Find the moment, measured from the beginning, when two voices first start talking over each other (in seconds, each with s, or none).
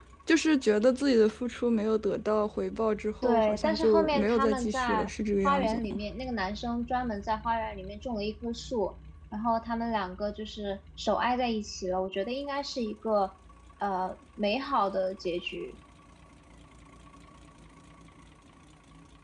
3.2 s